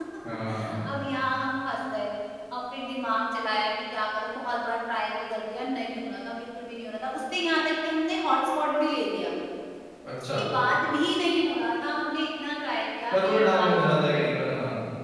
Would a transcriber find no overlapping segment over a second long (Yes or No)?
No